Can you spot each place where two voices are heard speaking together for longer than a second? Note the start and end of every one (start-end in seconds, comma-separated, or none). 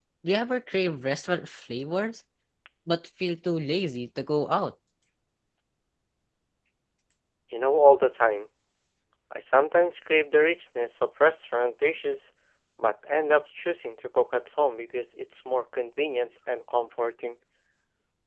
none